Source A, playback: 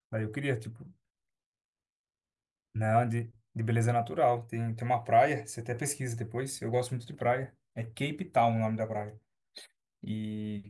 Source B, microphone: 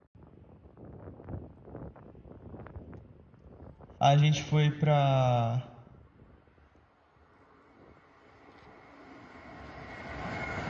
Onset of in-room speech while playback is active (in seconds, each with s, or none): 4.0 s